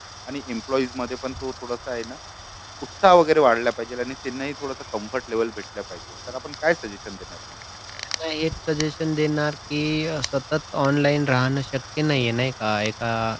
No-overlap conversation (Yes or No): Yes